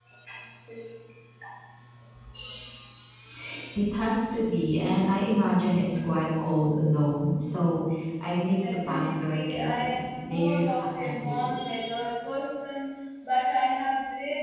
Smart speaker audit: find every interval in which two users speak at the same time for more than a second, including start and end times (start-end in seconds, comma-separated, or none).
8.7-11.8